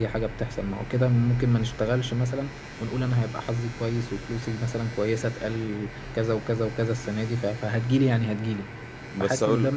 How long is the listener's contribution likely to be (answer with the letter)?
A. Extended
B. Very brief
B